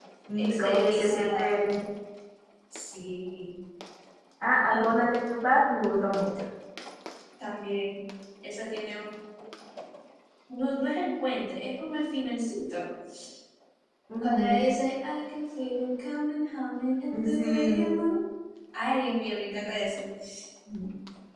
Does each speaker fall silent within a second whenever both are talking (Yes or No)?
No